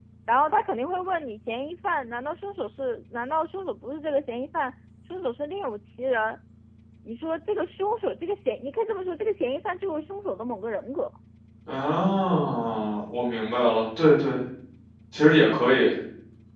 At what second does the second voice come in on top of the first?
none

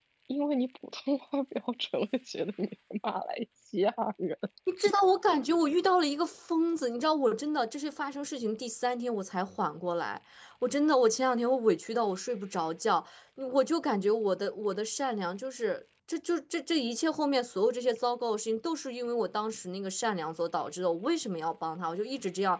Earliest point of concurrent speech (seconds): none

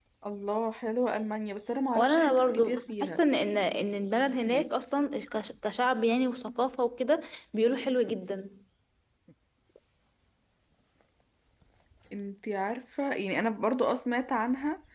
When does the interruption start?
1.9 s

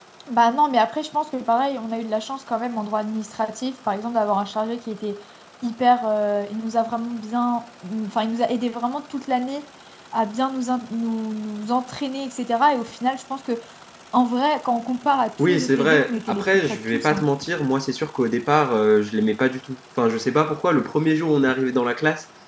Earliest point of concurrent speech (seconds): 15.4 s

